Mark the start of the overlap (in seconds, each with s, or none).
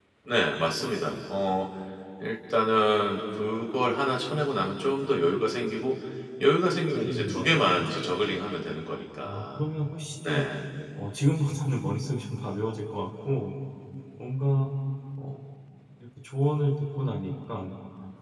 6.9 s